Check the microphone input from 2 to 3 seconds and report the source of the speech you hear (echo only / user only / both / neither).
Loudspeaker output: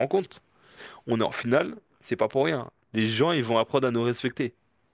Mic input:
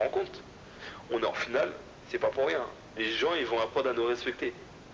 echo only